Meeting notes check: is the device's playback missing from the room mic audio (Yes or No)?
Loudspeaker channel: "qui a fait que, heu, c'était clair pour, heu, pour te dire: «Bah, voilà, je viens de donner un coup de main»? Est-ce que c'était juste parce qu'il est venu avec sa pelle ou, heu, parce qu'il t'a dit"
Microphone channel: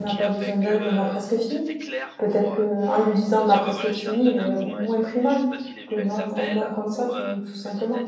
No